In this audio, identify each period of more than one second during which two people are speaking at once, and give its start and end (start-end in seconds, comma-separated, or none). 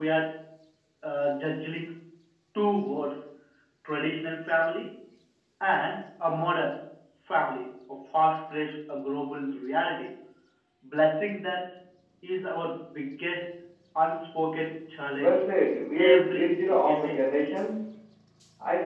15.9-17.2